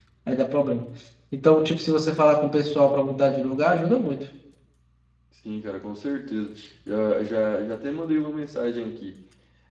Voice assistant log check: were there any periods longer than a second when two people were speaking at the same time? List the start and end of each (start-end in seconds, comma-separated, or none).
none